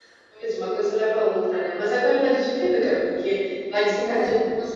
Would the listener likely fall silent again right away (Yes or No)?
Yes